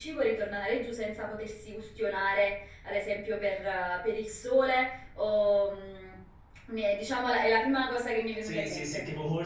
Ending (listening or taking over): taking over